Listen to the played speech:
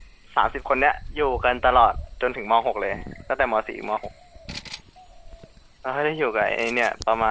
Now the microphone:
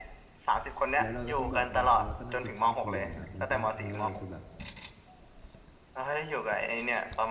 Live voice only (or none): แล้วเราก็ต้องแบบบางครั้งเราก็นั่งกินข้าวคนเดียวเลยครับมันก็ทำให้เรารู้สึกแบบ